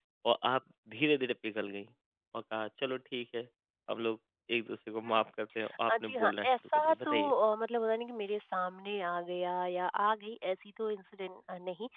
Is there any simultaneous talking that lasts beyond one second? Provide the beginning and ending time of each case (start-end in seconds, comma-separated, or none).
5.9-7.3